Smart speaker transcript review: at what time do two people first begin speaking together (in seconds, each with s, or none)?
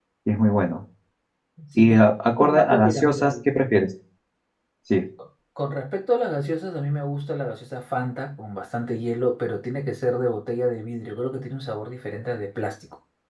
1.8 s